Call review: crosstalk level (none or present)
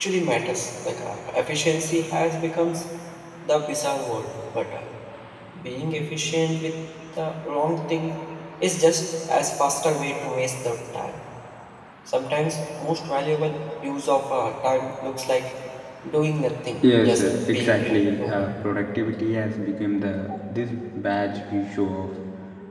present